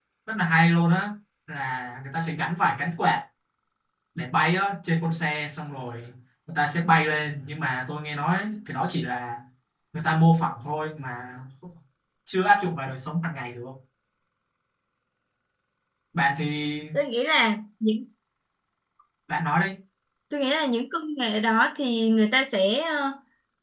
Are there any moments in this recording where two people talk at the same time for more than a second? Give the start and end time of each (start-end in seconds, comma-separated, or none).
none